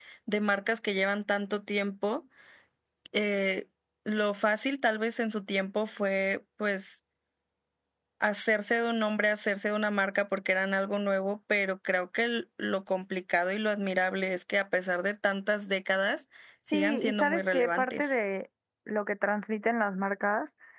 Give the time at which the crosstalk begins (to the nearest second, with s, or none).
17 s